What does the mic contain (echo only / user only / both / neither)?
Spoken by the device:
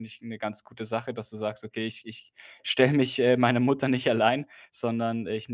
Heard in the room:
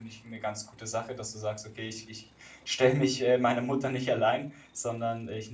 echo only